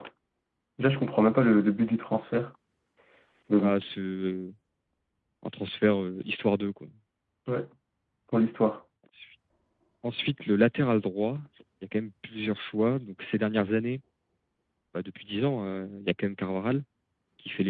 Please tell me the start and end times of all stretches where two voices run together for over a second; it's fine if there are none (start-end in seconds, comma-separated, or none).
none